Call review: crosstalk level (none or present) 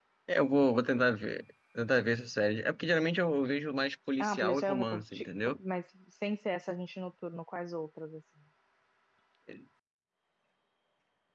present